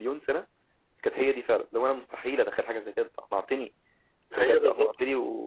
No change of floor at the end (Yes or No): Yes